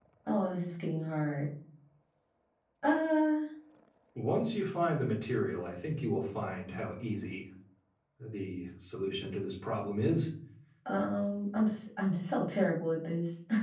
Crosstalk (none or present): none